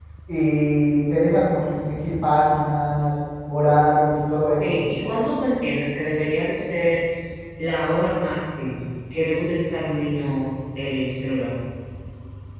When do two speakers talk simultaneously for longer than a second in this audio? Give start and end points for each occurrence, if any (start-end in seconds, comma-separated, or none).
none